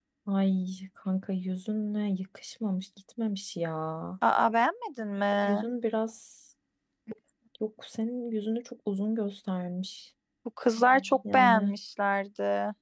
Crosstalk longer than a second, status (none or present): none